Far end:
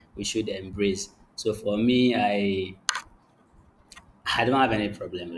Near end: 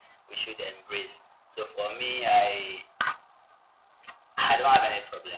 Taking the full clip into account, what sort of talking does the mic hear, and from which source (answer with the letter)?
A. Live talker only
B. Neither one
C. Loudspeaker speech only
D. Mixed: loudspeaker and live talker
C